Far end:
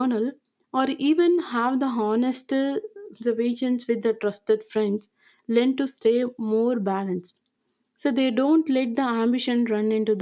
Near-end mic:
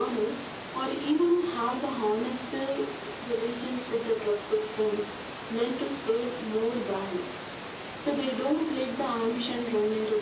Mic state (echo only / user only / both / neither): echo only